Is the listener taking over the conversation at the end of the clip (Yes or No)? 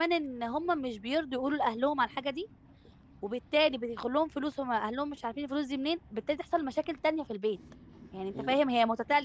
No